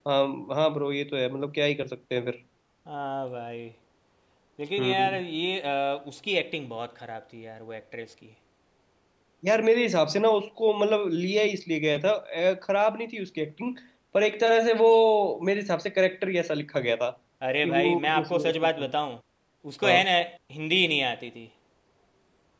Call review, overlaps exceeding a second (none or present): present